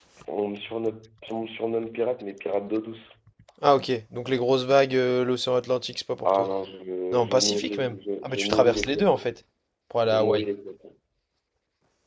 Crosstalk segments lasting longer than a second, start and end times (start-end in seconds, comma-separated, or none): 7.1-9.2